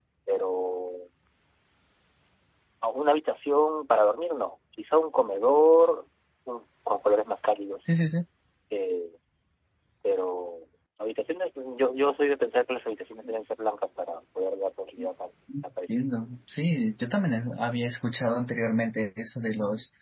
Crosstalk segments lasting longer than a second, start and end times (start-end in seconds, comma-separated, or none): none